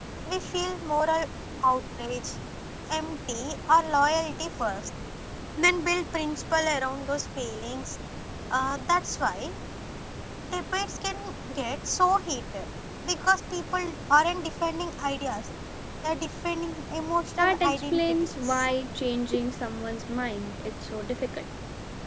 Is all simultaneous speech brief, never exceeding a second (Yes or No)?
No